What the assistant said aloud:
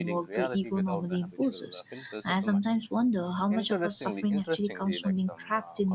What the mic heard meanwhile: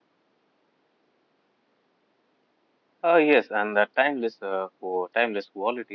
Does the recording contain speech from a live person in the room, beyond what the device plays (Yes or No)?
Yes